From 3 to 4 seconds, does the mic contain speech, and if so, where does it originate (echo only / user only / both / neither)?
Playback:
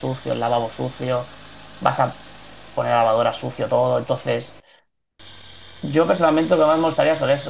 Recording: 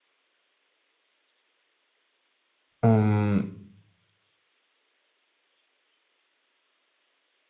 user only